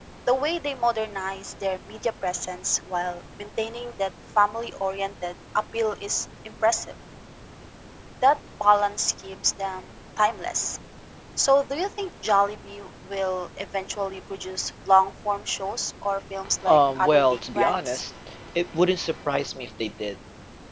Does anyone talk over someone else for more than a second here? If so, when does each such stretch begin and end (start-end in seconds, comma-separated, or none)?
16.7-18.0